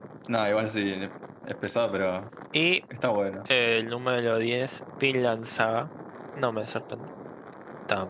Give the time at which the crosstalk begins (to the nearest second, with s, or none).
none